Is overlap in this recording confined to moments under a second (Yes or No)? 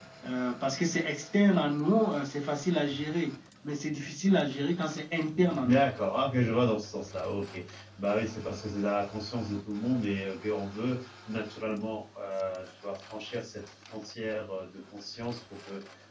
Yes